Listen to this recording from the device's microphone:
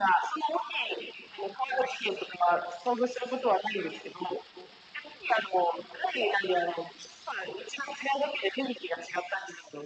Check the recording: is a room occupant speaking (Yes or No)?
No